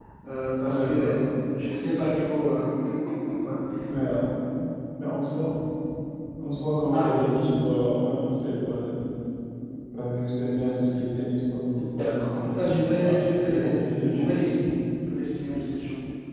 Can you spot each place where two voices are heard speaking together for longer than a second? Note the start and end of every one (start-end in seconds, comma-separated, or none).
11.8-14.3